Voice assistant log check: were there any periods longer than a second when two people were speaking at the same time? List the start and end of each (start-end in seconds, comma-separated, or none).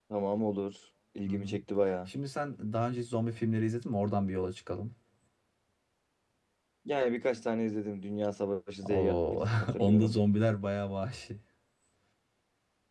8.9-10.2